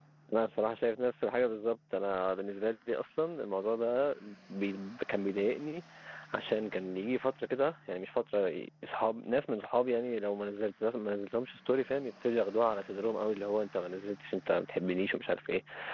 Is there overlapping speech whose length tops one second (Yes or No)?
No